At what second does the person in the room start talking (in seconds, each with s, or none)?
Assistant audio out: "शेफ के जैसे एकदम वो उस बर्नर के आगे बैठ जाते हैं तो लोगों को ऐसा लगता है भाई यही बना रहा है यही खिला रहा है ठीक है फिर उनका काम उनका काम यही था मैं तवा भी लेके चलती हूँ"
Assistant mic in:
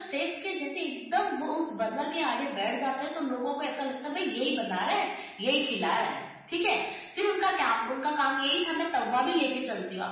none